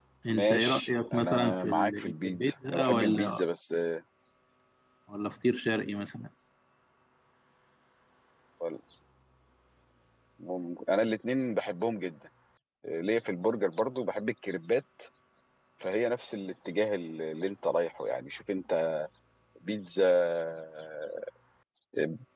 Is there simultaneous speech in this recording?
Yes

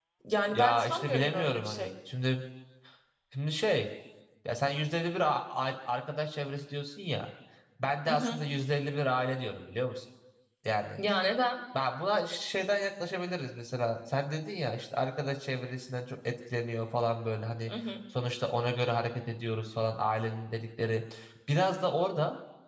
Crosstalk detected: Yes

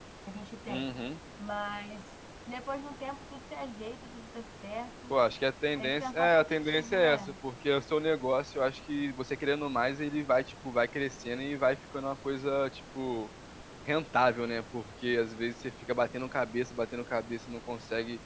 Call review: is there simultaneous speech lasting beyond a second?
Yes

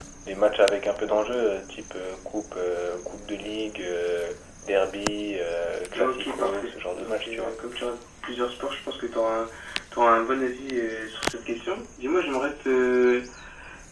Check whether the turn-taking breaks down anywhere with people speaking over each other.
Yes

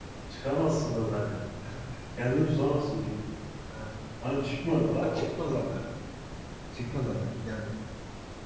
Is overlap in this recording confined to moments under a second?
Yes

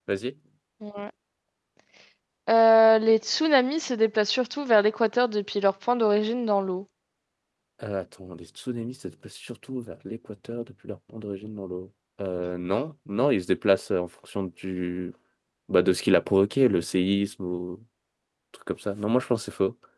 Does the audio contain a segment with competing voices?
No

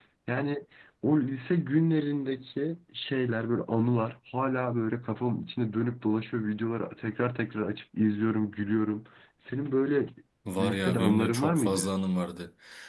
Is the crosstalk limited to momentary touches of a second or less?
No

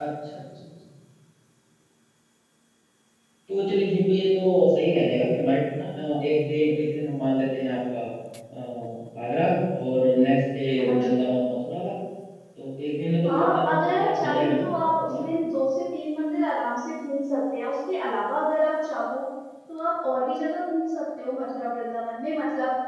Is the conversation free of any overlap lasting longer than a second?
No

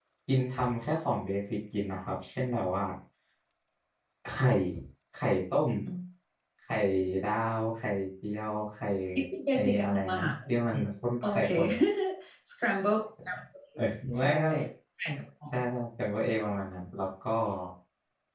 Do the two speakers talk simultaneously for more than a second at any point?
Yes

